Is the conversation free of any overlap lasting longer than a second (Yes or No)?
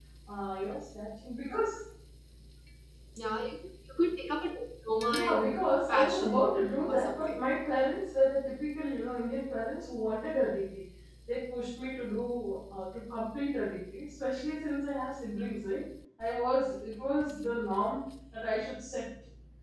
No